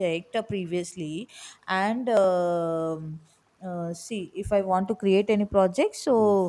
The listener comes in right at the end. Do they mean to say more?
No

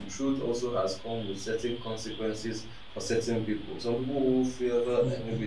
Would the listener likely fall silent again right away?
Yes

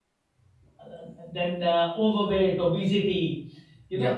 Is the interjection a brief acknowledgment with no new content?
Yes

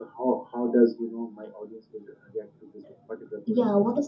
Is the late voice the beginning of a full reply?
Yes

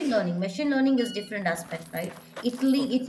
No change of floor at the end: Yes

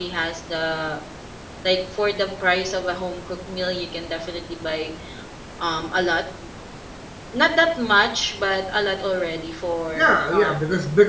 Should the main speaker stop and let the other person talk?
Yes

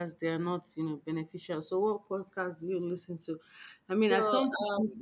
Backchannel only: Yes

